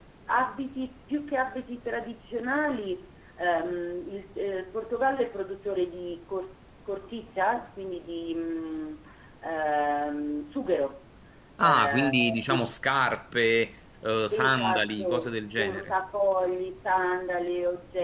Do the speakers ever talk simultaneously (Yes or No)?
Yes